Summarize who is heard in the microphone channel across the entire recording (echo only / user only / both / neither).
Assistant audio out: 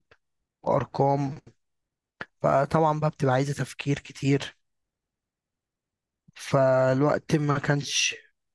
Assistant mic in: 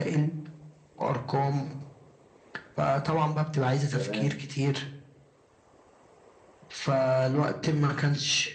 both